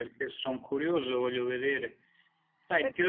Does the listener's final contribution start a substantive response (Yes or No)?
No